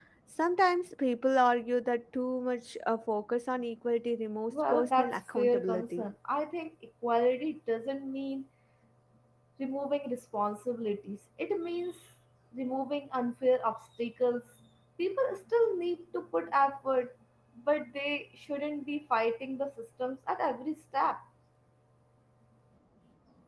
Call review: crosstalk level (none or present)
present